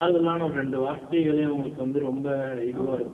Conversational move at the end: listening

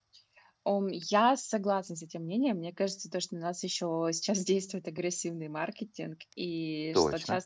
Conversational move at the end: listening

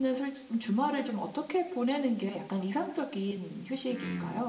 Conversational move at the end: taking over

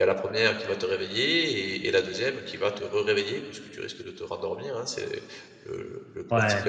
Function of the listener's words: listening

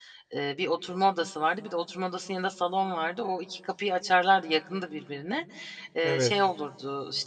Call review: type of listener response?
listening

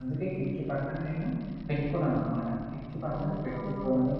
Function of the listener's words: listening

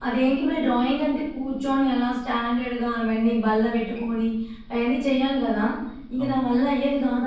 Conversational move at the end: listening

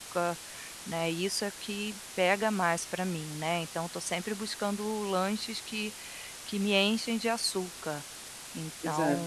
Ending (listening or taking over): listening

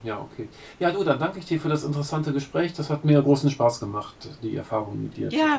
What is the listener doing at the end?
taking over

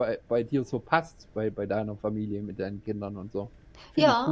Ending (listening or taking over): taking over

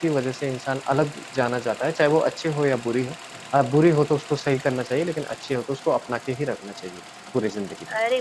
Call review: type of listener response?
taking over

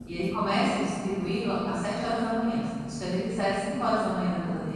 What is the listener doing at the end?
taking over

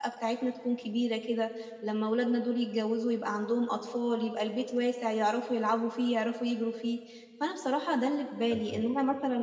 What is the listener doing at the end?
listening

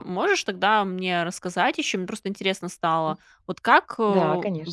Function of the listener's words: listening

